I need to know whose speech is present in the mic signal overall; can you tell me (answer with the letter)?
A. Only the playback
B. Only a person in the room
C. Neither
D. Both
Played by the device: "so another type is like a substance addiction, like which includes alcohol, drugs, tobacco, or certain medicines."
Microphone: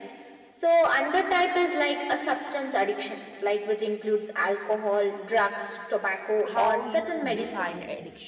D